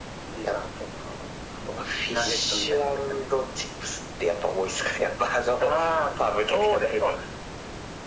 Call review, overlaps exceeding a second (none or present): present